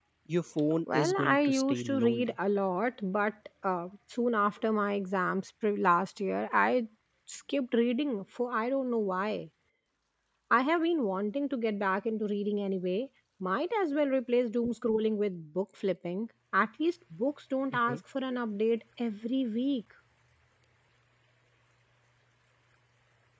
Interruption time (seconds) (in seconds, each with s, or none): 0.9 s